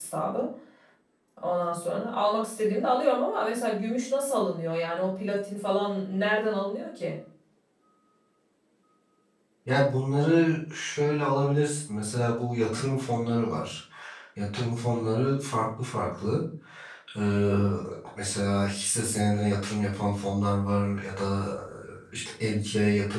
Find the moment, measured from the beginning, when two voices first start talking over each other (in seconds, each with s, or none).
none